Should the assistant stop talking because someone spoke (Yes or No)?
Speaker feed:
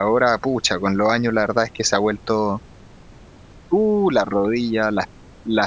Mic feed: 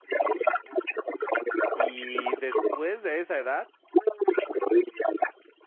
Yes